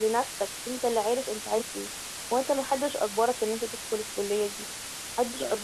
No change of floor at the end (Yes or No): Yes